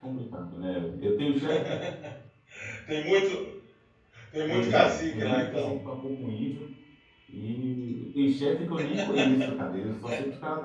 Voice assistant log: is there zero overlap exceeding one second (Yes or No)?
No